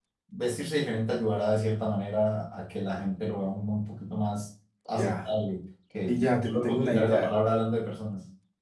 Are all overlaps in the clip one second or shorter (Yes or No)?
No